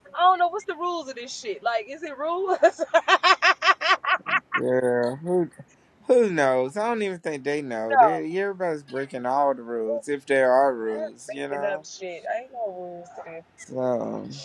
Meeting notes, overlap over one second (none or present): none